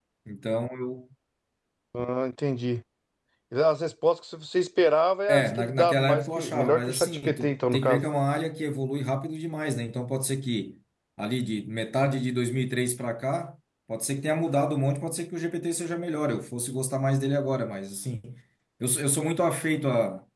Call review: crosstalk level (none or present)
present